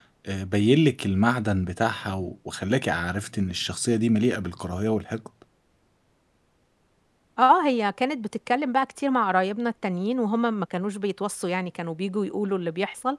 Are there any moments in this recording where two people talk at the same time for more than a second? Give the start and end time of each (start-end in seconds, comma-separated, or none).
none